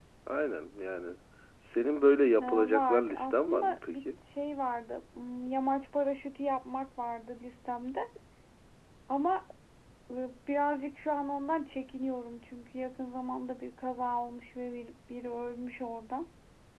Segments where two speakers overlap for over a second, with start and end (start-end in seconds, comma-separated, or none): 2.4-4.0